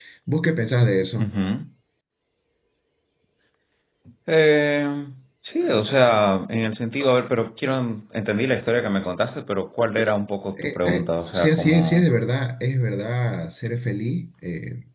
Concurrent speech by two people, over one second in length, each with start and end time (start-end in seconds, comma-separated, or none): 10.6-12.1